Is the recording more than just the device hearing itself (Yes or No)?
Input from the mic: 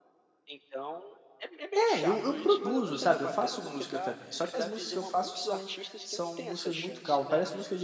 Yes